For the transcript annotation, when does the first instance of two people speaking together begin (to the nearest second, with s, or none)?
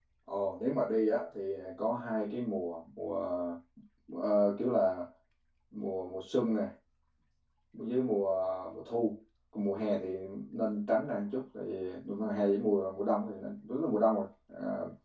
none